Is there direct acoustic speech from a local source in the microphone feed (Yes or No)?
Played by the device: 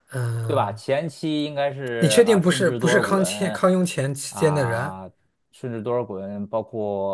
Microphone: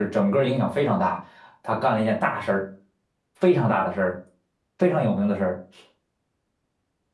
Yes